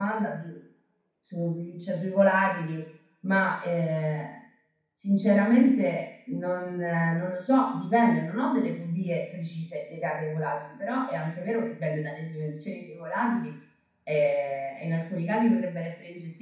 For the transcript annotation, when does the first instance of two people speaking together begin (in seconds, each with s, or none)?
none